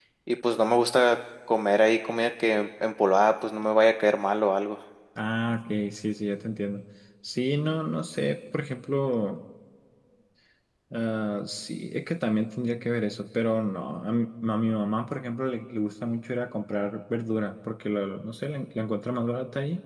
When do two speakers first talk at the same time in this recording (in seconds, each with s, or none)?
none